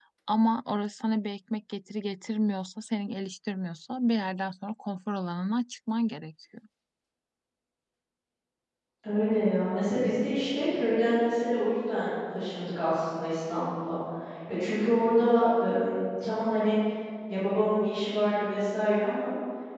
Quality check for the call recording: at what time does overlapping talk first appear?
none

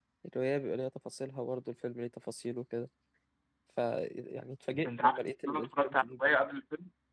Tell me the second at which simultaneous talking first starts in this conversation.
4.8 s

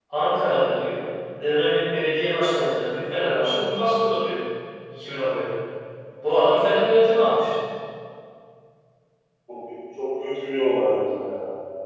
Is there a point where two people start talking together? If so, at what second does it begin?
none

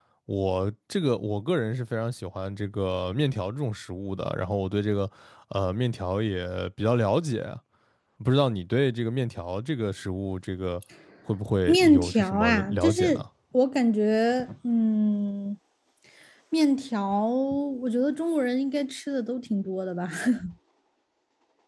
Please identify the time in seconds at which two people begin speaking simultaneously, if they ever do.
11.7 s

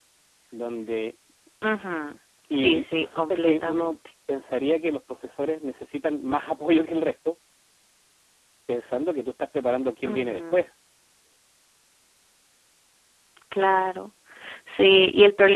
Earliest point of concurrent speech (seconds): 2.5 s

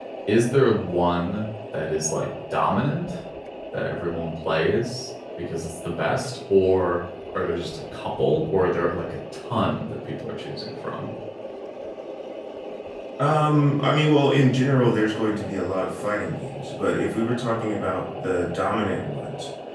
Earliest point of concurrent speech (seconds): none

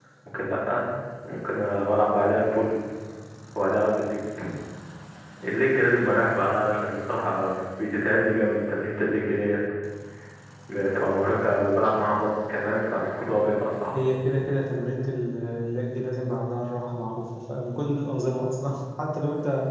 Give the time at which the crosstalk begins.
none

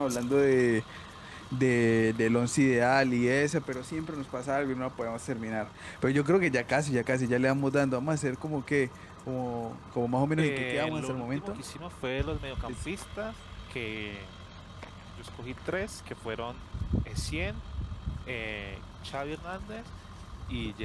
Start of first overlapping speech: 10.4 s

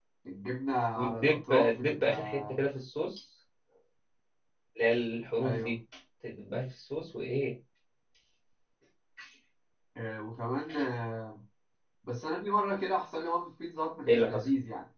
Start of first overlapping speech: 1.0 s

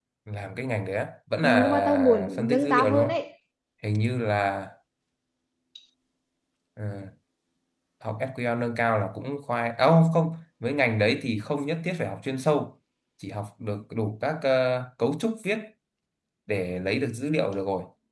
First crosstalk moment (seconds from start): 1.4 s

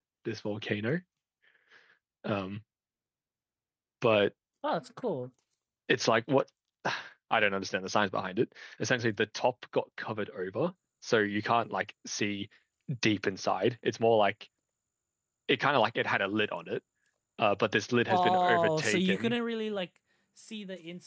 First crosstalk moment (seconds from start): 18.1 s

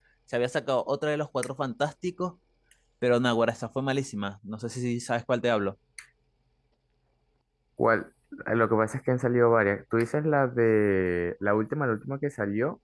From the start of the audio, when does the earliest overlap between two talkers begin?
none

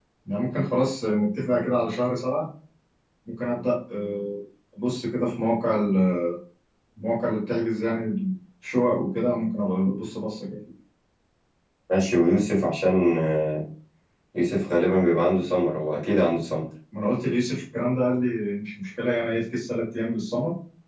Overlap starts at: none

